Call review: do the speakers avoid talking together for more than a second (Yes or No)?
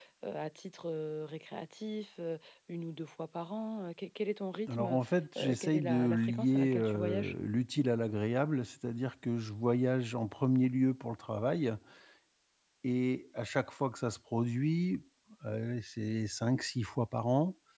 No